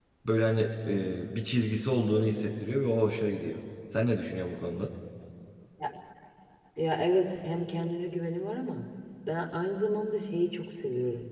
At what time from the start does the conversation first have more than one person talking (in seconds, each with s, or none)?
none